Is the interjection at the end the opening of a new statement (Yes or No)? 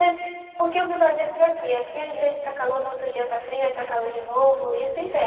Yes